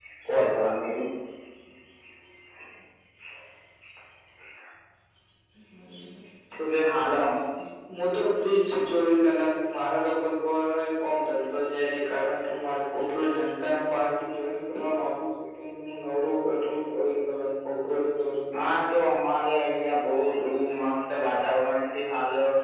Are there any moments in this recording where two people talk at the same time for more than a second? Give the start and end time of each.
none

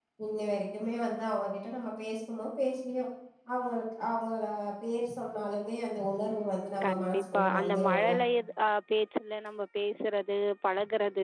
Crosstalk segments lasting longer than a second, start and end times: 6.8-8.1

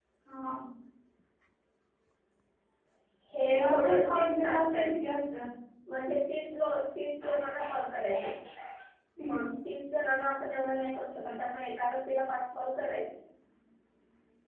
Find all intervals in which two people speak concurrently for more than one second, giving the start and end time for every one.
3.5-4.9

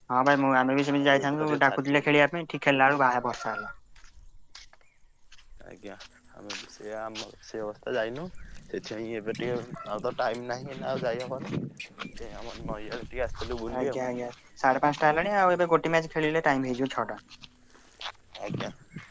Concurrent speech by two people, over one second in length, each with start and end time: 0.9-2.1

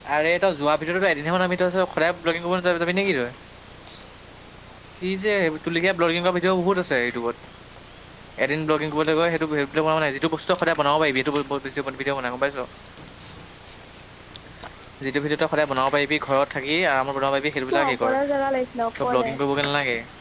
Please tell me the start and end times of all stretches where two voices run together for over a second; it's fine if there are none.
none

